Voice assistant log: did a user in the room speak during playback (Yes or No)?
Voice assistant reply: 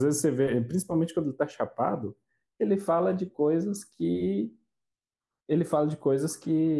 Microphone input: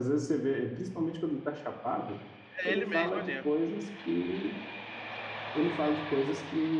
Yes